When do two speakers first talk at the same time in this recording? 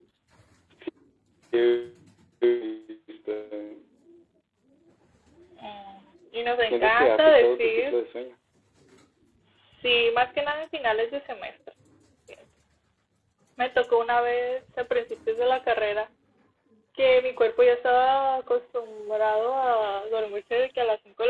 7 s

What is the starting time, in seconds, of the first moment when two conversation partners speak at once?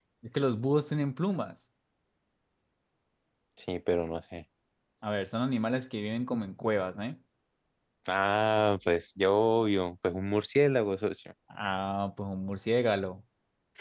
none

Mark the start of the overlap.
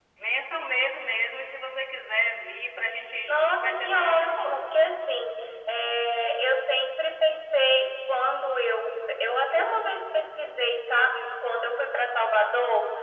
3 s

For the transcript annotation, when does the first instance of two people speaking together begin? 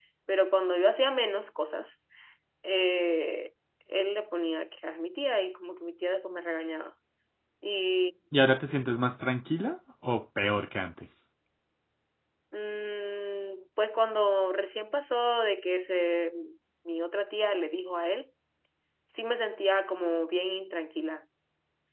none

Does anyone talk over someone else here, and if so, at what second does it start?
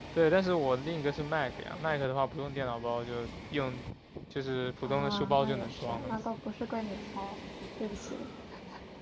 5 s

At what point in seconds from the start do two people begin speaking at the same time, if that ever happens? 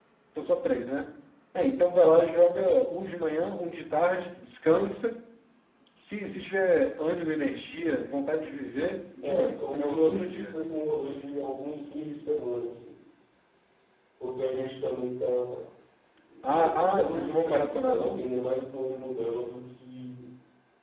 9 s

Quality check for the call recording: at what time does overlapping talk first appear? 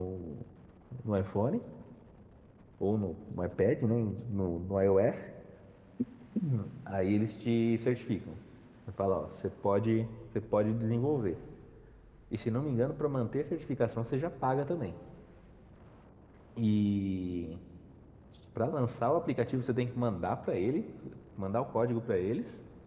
none

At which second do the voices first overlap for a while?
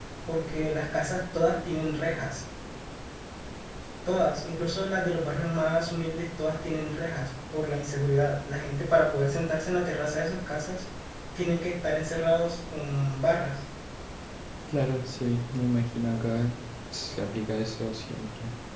none

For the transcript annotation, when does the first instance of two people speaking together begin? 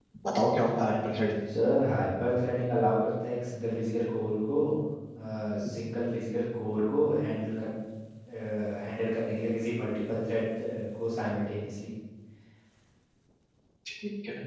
none

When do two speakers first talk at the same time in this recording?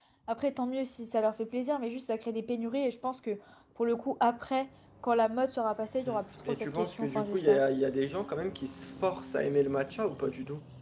6 s

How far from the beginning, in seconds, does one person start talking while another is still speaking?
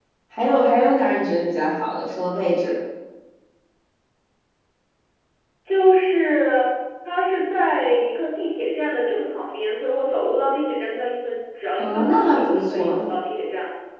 12 s

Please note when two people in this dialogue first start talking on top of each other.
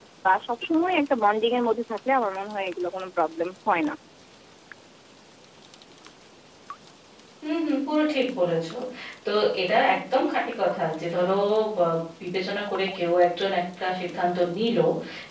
none

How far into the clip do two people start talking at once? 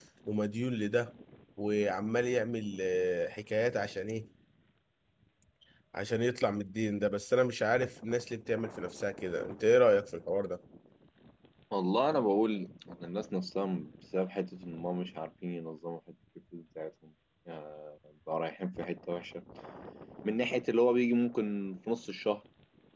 none

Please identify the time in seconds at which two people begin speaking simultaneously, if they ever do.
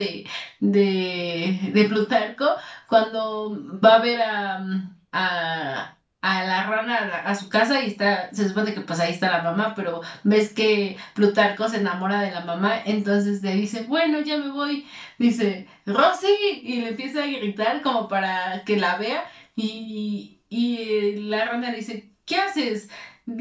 none

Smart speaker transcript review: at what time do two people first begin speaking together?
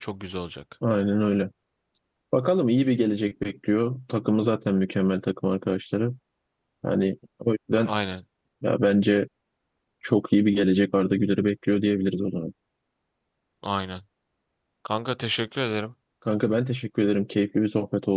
none

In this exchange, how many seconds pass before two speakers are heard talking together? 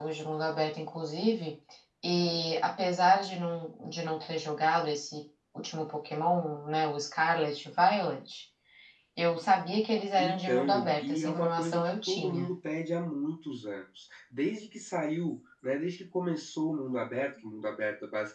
10 s

